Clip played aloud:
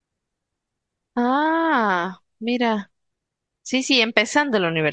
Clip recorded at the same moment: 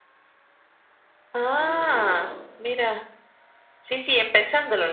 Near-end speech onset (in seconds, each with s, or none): 1.5 s